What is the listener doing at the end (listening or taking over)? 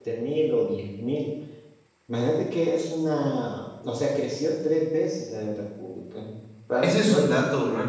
taking over